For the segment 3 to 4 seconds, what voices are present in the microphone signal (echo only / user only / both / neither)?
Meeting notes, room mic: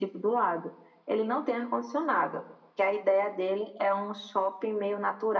echo only